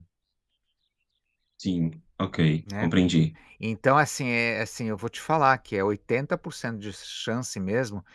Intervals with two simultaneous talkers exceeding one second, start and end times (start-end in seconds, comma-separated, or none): none